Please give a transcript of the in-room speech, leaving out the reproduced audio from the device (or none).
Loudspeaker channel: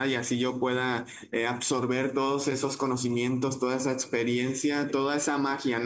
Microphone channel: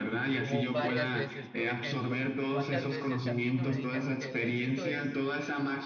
Como varias veces, por ejemplo, ¿cuántas veces a mí no me dijeron que el éxito es